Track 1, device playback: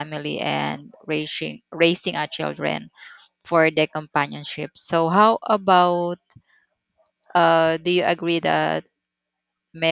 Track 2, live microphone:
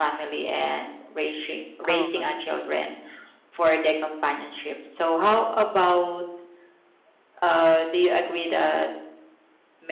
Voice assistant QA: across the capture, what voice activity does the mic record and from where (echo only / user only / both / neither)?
both